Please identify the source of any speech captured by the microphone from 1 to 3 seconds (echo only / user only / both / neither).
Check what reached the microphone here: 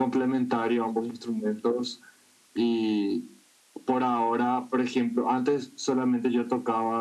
echo only